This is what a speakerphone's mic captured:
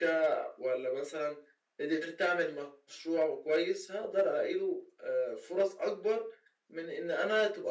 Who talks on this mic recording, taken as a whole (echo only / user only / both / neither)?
echo only